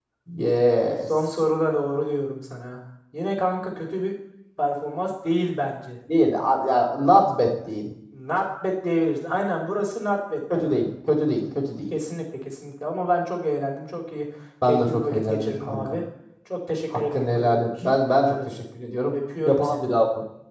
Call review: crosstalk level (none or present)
present